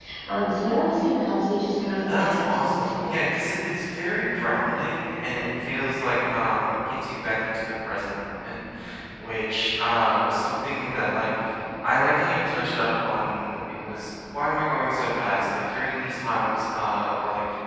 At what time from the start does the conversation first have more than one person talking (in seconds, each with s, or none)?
2.1 s